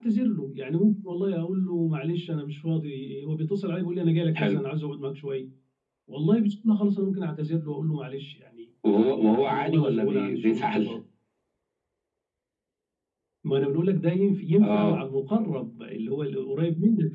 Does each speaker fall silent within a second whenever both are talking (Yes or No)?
No